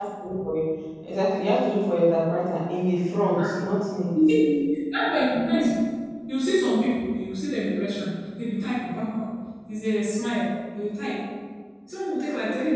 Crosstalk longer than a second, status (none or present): none